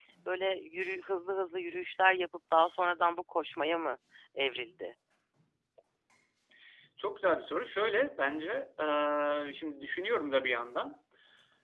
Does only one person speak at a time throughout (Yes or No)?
Yes